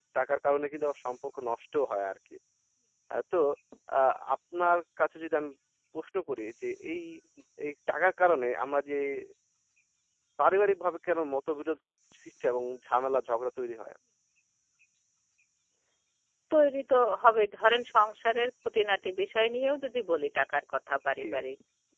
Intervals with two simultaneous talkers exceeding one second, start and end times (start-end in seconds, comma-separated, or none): none